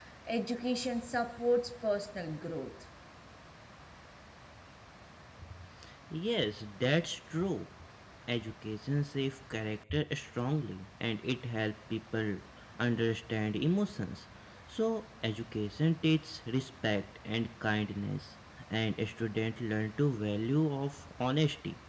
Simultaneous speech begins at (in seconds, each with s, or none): none